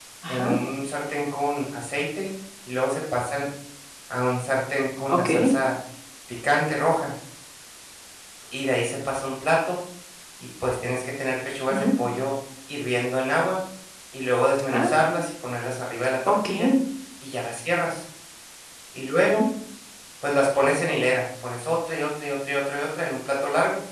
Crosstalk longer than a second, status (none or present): none